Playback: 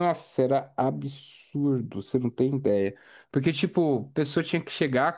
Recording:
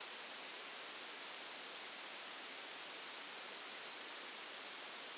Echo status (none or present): none